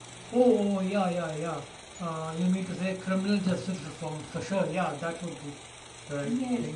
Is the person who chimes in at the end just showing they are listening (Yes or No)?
No